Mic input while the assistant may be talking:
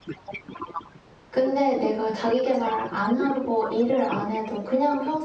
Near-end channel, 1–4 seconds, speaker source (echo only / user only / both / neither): both